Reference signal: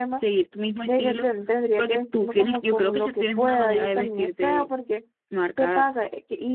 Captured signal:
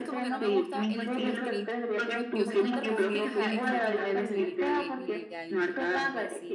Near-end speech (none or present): present